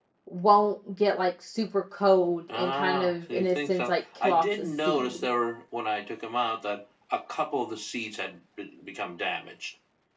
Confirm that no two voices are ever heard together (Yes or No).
No